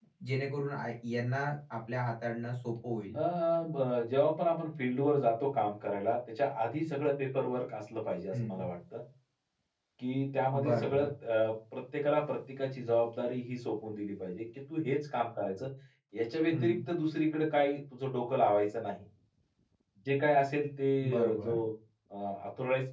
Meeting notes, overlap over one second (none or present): none